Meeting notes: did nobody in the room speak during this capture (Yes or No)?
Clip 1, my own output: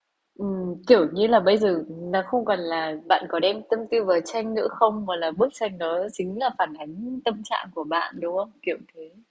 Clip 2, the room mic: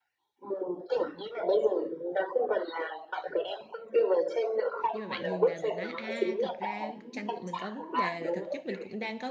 No